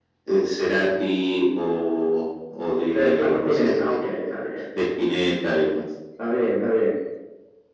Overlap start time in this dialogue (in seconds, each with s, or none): 2.9 s